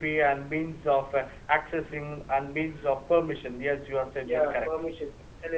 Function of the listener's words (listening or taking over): taking over